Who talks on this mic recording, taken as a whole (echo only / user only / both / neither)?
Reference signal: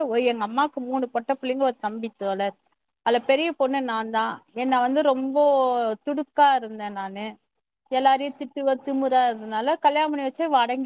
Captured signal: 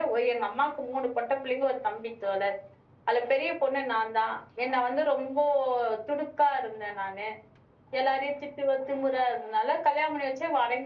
echo only